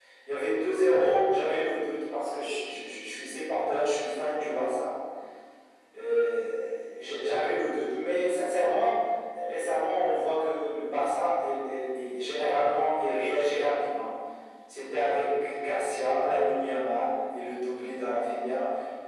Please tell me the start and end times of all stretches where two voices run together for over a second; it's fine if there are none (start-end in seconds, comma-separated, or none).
none